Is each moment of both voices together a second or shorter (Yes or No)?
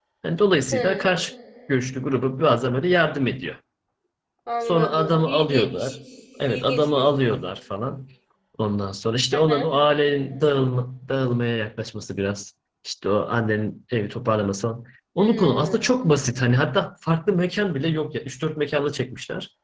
No